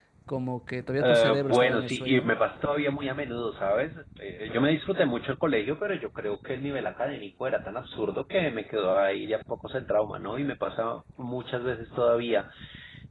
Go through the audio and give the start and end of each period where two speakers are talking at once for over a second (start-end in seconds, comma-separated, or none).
1.0-2.3